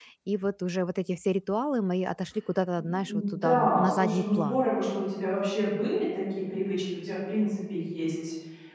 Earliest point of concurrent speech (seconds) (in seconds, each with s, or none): 2.7 s